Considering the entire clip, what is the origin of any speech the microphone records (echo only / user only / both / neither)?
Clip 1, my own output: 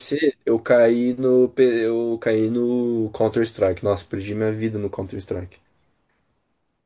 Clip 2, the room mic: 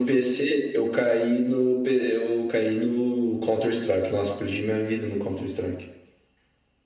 echo only